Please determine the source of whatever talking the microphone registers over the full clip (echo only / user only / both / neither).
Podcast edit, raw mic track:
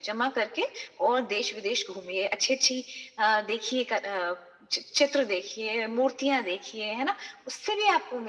echo only